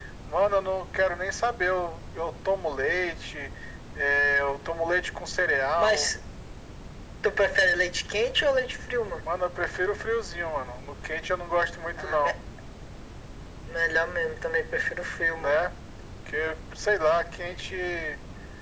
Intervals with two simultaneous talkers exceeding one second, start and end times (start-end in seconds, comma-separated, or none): none